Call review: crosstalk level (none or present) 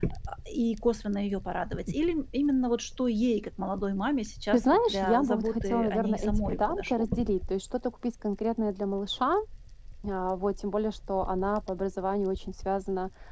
present